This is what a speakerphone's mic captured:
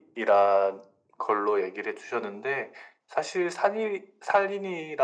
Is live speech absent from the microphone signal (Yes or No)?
Yes